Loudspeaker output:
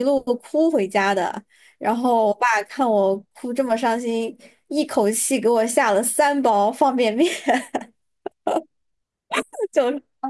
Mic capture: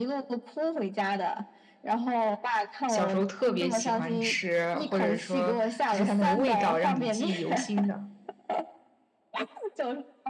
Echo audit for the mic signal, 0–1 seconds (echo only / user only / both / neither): echo only